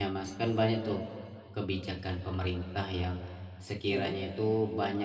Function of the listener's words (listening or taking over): listening